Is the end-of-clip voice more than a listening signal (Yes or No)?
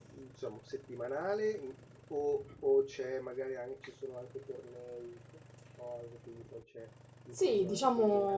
Yes